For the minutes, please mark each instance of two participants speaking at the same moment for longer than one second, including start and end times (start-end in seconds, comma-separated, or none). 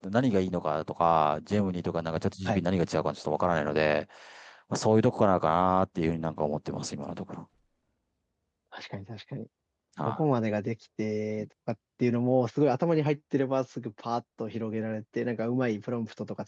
none